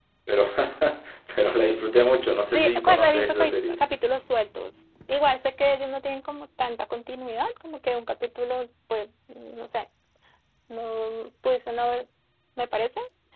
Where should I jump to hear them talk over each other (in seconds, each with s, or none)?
2.5 s